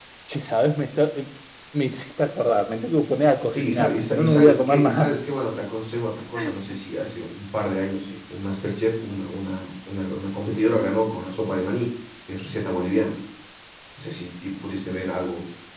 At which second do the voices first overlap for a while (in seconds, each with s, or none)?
3.5 s